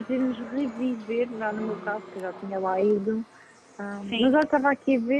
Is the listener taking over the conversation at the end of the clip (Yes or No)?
No